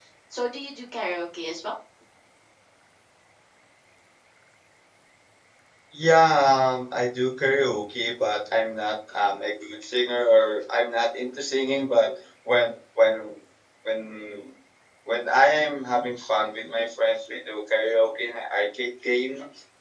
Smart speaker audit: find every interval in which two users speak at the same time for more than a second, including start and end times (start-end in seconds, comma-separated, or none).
none